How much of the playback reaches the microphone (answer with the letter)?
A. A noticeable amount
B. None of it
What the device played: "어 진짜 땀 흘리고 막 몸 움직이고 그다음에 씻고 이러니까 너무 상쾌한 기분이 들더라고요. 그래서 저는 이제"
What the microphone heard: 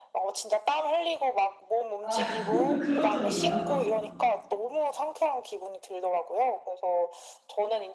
A